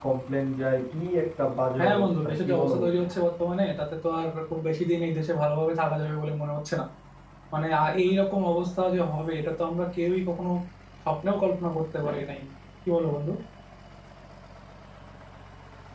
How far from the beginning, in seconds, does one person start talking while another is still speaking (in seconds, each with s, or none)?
1.8 s